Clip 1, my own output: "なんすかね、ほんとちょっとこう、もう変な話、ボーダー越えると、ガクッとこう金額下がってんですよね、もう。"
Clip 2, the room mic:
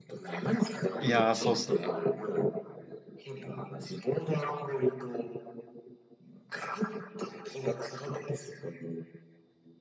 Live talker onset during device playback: 1.0 s

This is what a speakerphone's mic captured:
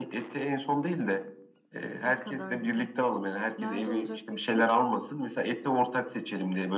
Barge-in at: 2.0 s

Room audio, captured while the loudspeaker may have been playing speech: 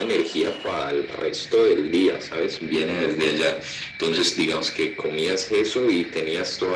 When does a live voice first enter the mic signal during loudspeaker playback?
none

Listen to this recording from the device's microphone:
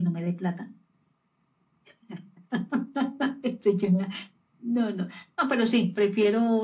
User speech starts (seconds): none

